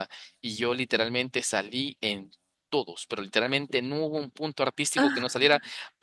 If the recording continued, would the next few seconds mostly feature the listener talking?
No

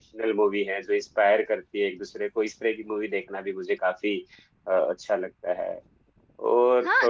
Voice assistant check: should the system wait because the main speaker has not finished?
No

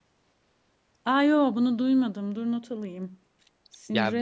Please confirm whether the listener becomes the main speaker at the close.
Yes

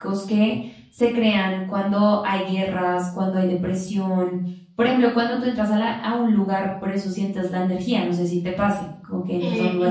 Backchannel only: No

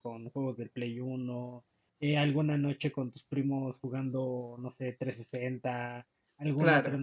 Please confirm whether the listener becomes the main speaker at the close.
No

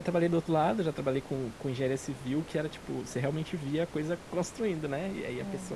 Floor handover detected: No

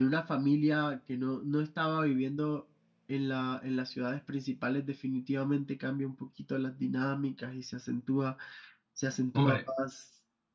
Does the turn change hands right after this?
No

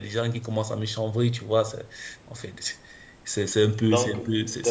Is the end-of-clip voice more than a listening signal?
No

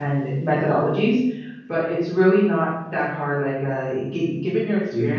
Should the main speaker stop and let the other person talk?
No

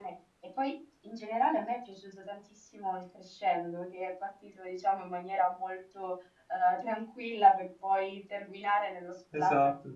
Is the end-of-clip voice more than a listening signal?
No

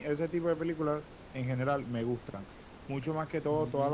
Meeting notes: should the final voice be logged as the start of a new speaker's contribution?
No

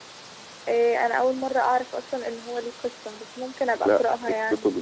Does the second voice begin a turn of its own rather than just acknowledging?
Yes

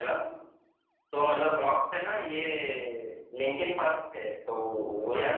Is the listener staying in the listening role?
No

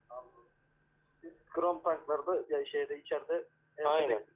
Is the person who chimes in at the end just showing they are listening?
No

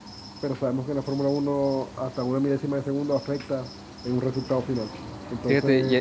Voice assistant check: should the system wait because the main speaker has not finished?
No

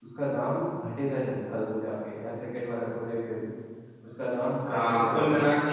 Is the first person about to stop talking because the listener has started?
Yes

